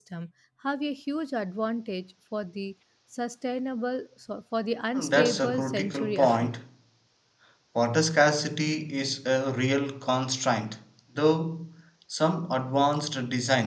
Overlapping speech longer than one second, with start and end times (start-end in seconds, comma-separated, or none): 5.0-6.5